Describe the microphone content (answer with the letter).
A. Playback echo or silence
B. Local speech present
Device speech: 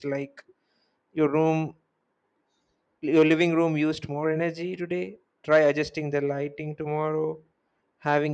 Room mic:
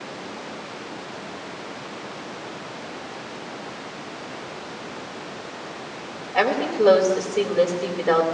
B